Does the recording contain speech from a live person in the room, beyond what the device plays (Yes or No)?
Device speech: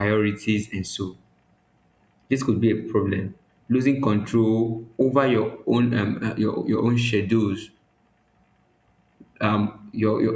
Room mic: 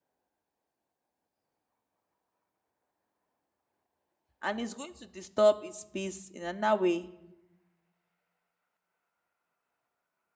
Yes